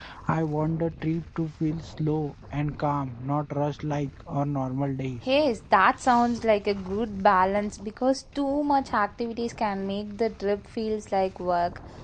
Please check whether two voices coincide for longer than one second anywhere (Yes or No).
No